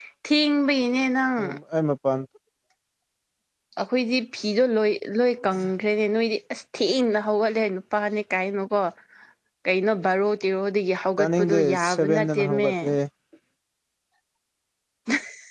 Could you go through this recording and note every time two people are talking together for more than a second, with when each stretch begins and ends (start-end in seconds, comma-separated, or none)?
11.2-12.7